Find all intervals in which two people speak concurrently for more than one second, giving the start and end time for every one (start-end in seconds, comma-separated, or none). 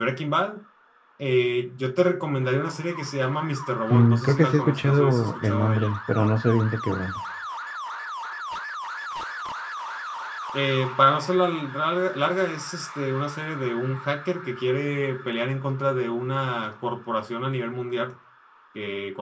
3.9-6.0